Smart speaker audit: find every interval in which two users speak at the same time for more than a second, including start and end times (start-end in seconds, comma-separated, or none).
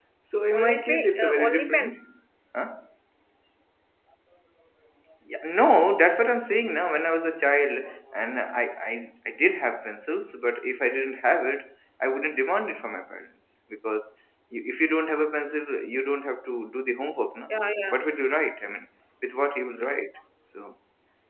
0.5-1.9